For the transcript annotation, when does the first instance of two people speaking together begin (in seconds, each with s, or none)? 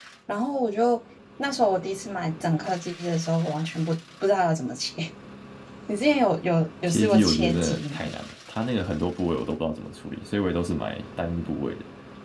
6.9 s